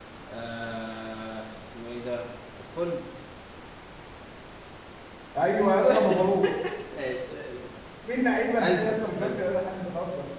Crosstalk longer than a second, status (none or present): present